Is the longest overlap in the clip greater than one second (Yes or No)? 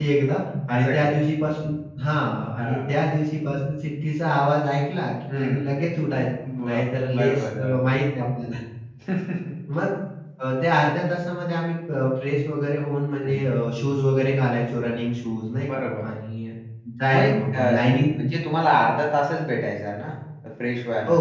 Yes